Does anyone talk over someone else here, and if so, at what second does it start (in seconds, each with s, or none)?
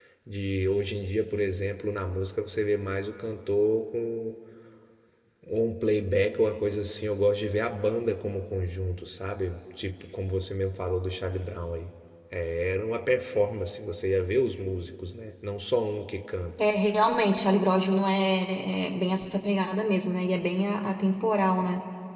none